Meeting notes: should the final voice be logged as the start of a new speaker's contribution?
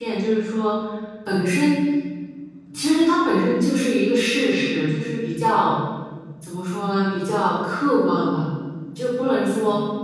No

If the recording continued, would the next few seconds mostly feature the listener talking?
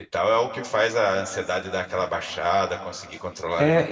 Yes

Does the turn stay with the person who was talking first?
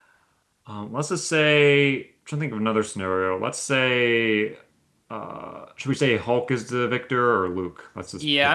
No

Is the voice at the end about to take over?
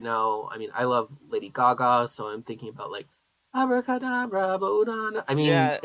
Yes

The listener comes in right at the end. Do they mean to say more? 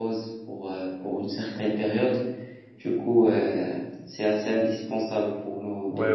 Yes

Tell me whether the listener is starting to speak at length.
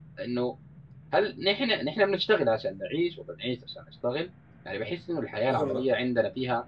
No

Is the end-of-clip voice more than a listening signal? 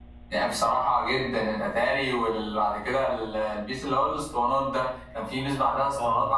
No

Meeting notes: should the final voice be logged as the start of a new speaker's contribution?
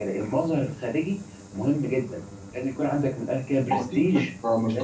Yes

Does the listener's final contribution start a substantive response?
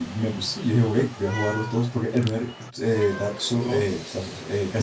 No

